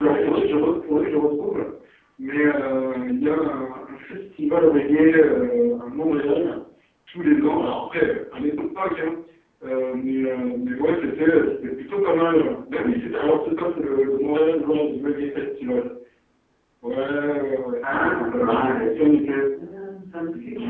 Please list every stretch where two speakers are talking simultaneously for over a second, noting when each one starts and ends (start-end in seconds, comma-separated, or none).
17.8-19.0